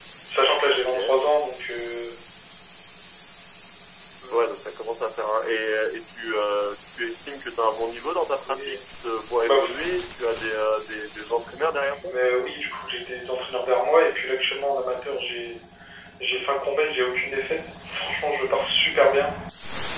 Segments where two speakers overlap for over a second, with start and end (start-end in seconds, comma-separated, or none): none